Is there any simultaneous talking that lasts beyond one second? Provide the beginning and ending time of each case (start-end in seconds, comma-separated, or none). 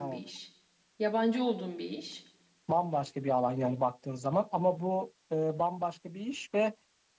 none